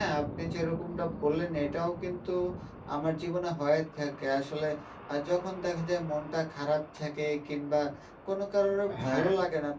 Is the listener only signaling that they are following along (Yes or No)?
Yes